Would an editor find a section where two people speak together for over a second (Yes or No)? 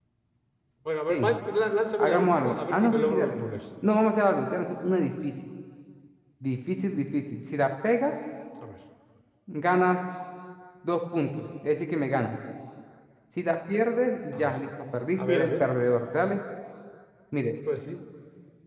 Yes